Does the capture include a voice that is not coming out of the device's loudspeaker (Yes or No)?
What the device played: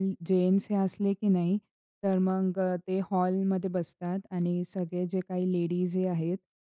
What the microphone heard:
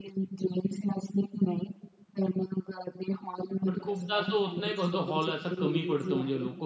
Yes